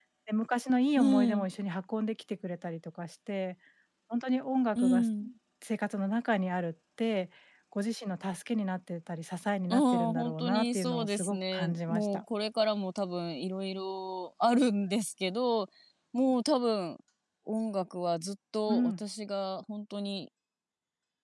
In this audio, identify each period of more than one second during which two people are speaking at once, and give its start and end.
9.7-12.2

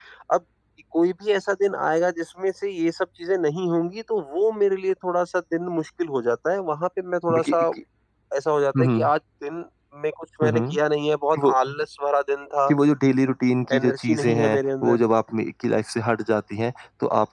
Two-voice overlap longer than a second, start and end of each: 13.8-15.0

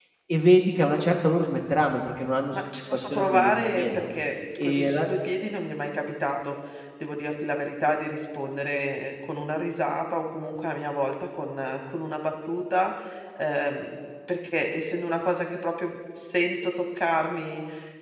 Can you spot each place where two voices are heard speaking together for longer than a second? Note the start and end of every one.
2.5-4.0

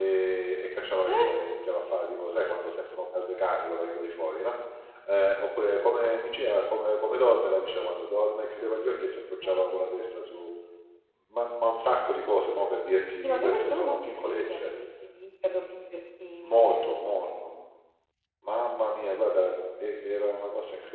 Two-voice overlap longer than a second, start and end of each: 13.2-14.6

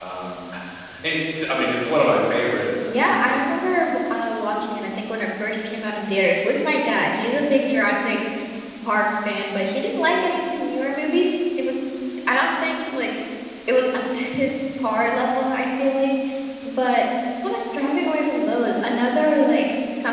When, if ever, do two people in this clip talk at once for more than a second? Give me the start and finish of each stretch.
none

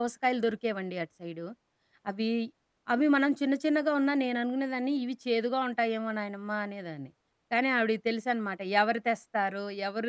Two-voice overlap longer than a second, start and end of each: none

